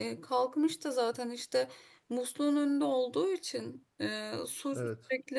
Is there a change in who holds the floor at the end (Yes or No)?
No